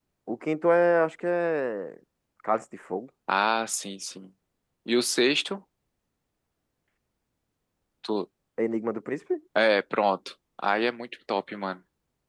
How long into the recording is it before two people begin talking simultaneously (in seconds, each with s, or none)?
none